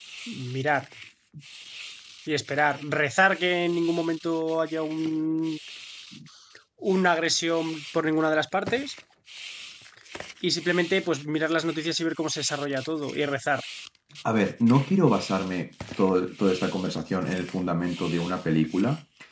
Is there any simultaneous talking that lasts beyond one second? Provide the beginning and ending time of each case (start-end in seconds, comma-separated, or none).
none